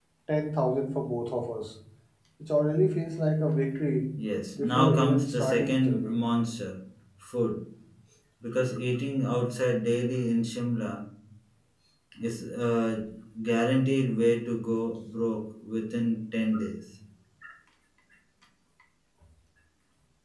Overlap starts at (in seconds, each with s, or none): 4.6 s